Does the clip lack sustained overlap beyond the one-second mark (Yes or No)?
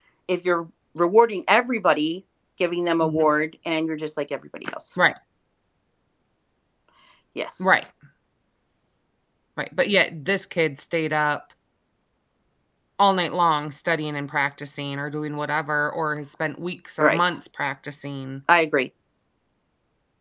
Yes